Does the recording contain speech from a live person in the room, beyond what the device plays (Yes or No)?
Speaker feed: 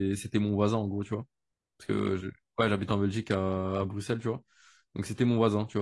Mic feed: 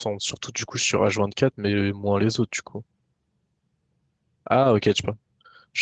Yes